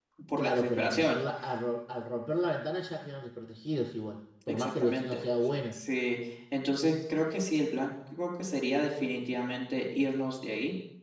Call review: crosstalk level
present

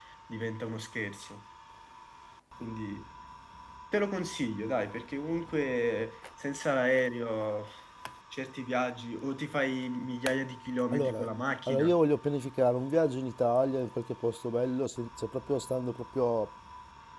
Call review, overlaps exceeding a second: none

